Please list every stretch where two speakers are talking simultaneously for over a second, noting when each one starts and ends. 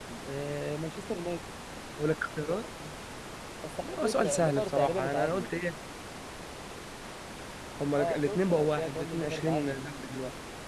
4.0-5.5, 7.9-9.8

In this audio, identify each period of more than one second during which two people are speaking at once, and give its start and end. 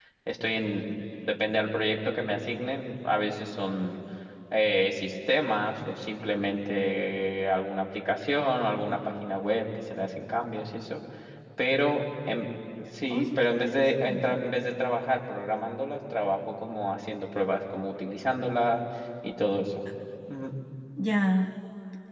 13.1-14.4

